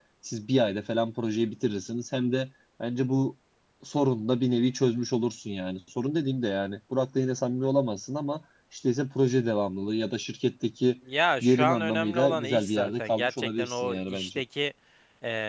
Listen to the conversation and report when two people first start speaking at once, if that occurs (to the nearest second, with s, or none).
11 s